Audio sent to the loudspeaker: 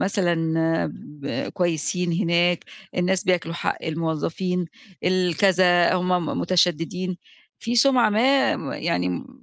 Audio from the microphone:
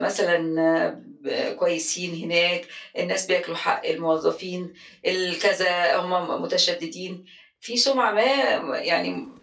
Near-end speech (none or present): none